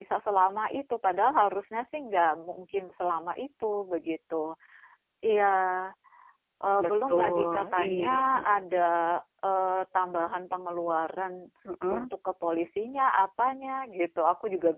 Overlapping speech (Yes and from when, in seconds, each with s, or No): Yes, from 6.8 s